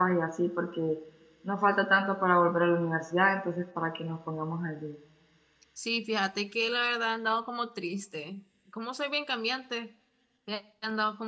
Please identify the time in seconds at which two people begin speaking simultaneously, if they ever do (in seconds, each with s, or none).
none